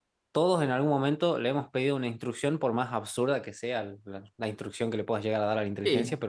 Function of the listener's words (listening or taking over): taking over